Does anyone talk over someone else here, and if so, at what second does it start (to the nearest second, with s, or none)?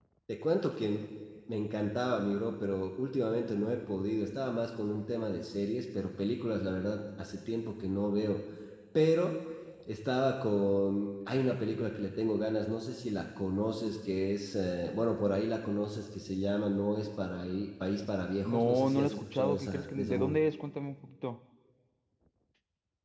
18 s